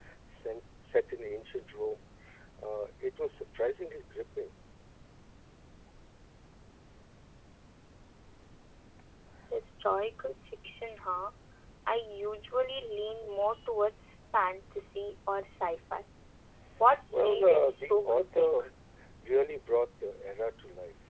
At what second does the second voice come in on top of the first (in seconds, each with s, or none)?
17.1 s